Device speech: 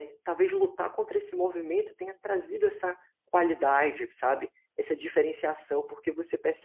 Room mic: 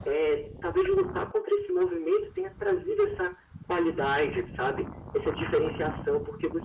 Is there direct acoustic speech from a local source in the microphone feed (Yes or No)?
No